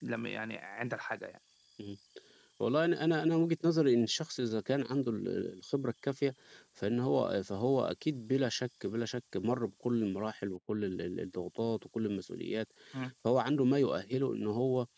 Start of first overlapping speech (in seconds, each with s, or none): none